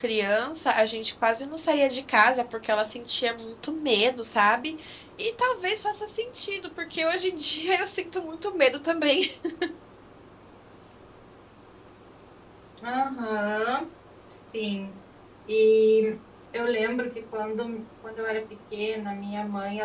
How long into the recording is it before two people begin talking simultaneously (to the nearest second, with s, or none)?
none